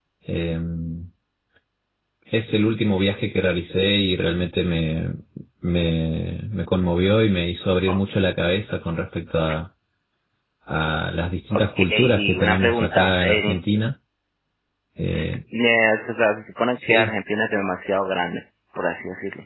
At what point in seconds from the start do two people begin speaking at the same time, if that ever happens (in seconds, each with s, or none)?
11.8 s